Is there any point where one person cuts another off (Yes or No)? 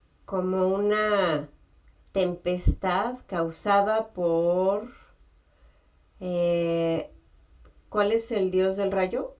No